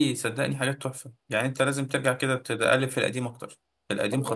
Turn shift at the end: Yes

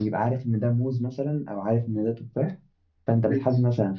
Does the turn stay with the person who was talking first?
Yes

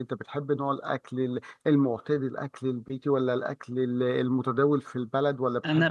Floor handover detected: Yes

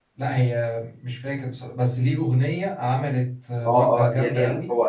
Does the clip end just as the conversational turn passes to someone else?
Yes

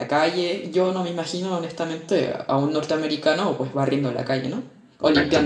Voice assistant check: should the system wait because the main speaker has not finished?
No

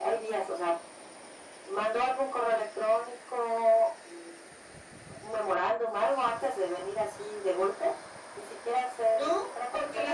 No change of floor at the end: No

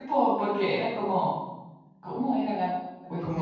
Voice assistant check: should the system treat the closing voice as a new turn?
Yes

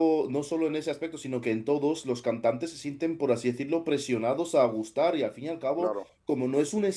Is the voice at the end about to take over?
No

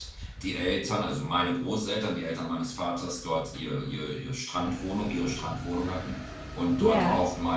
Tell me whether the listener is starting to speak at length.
No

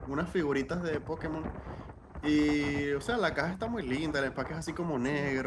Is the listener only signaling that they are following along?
Yes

